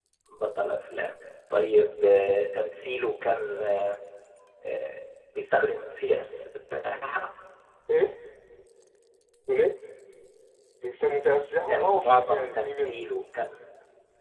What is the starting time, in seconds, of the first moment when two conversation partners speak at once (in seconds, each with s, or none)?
11.7 s